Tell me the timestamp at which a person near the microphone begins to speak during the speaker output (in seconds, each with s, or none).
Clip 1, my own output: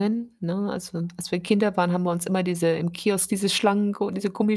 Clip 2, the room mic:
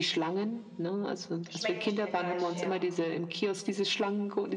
1.5 s